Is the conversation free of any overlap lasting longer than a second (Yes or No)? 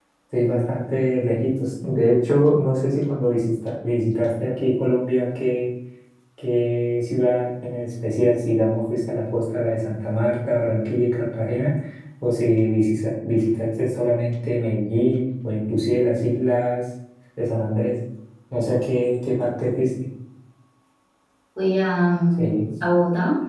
Yes